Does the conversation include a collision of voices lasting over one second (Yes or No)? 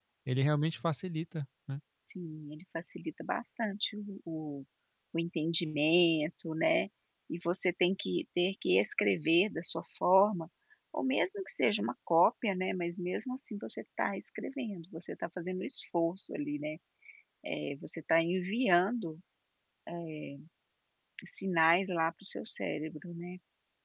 No